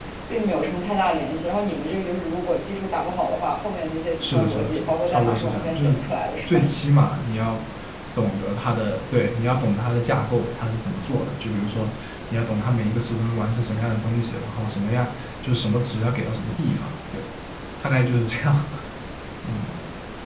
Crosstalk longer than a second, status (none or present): present